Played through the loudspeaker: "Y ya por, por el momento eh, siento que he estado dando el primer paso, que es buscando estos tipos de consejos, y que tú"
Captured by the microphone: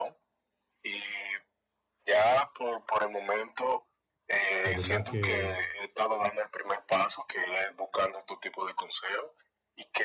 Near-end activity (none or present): present